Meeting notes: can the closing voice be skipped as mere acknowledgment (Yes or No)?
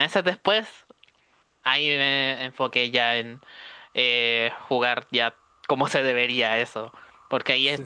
Yes